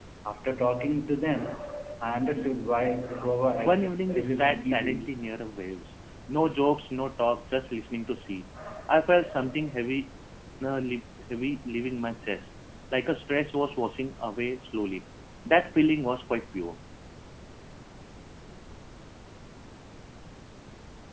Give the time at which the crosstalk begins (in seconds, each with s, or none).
3.6 s